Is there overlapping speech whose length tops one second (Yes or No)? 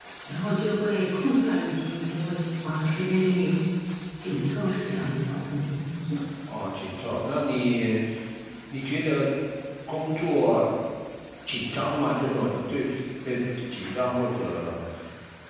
No